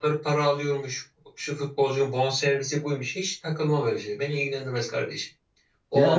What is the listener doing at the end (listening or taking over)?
listening